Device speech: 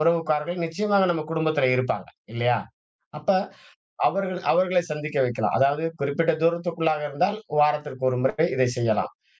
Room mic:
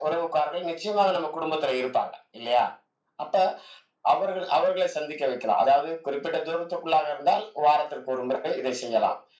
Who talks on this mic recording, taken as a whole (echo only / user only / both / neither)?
echo only